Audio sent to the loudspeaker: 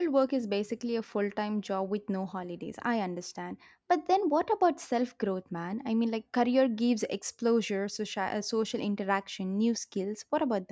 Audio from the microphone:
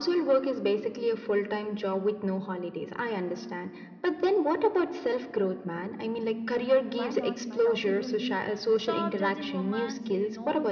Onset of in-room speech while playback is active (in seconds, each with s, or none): 6.9 s